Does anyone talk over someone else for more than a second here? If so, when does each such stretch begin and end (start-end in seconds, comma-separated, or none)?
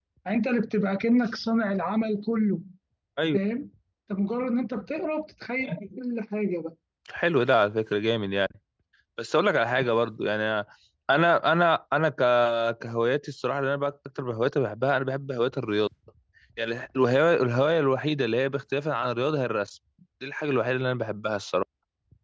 none